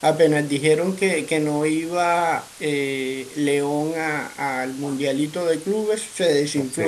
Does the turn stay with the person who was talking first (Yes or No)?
No